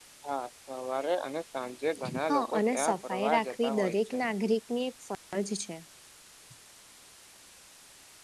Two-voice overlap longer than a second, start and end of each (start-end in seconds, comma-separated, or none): 2.3-4.2